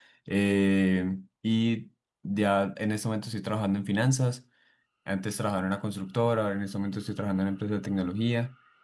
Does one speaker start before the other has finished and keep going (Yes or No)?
No